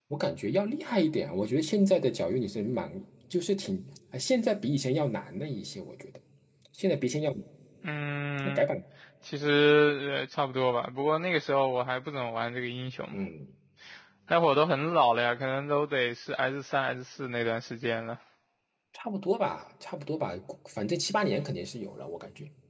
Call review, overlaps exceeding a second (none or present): none